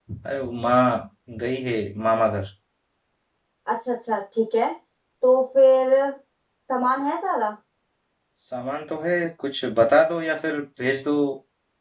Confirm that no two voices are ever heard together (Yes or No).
Yes